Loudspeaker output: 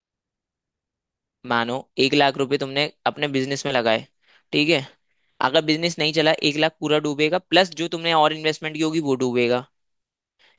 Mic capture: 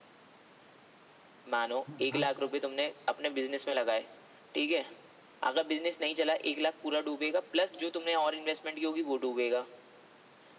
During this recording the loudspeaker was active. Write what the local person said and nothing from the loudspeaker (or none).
हाँ हाँ,